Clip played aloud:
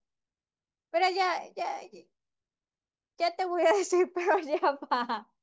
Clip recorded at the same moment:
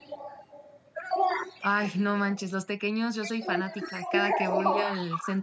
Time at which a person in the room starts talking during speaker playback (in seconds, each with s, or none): 1.6 s